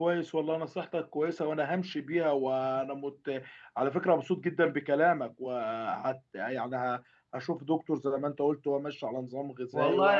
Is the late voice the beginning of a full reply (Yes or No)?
Yes